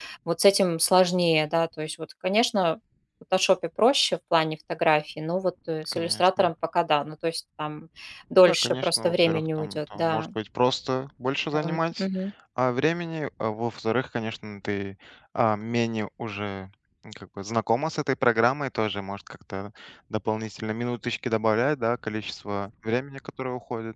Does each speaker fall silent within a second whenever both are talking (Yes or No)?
No